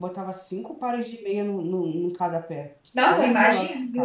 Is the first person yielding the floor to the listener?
Yes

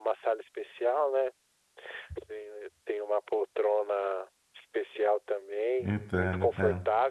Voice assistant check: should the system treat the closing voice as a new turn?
No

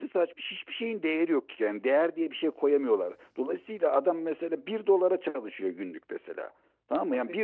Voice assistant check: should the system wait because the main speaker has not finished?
Yes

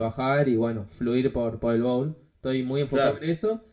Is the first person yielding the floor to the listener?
No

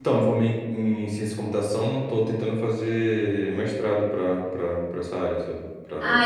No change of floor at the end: No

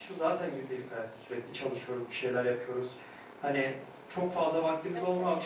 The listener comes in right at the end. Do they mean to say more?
No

